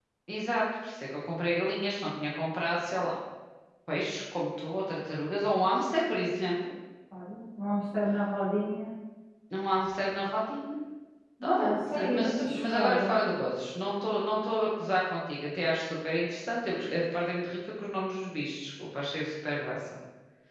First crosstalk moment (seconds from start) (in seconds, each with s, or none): 11.4 s